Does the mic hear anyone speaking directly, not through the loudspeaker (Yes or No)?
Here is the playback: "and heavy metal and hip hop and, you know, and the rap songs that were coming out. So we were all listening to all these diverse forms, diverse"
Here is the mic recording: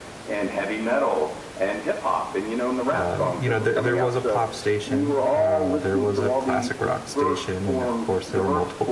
Yes